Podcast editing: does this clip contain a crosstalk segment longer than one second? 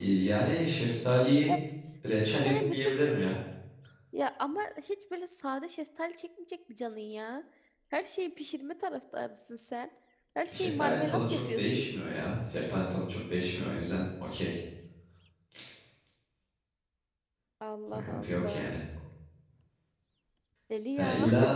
Yes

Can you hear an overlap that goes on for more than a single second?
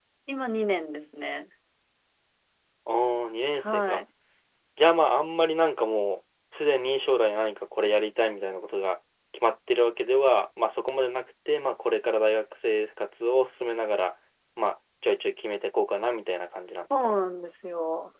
No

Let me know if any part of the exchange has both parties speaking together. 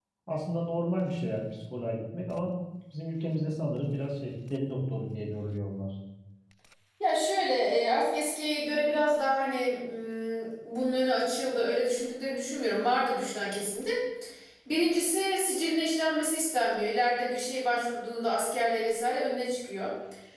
No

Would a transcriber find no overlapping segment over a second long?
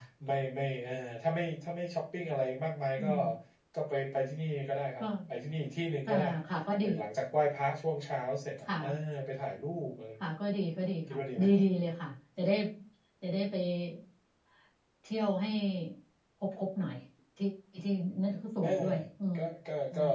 Yes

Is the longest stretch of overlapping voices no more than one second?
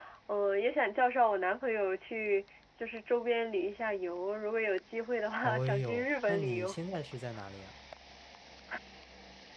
No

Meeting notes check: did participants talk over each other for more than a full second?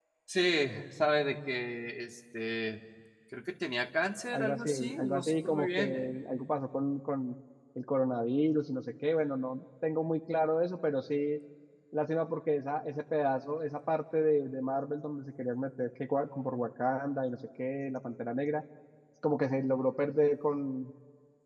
Yes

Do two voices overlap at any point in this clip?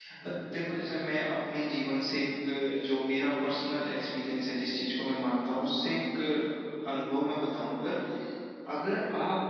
No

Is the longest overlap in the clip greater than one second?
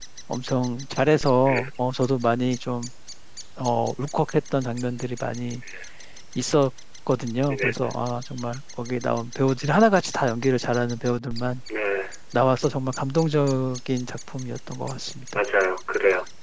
No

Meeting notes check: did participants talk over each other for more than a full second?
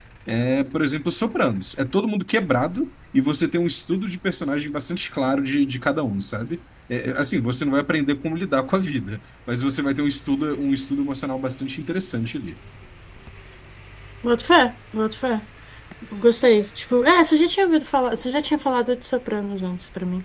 No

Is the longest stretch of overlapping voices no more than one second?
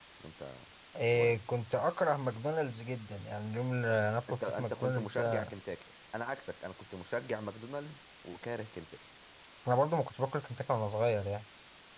No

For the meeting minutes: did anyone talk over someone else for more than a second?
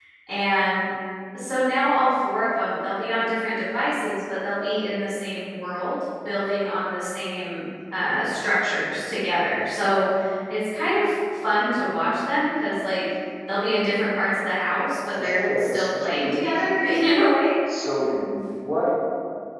Yes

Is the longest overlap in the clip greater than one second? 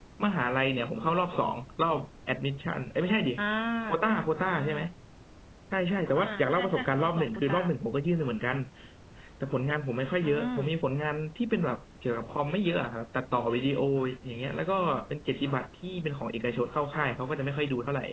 Yes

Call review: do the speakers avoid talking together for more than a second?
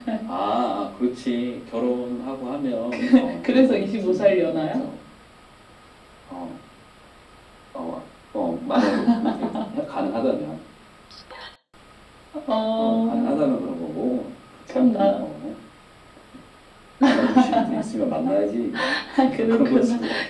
No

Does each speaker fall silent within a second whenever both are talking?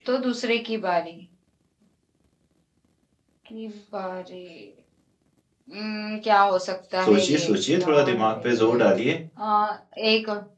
No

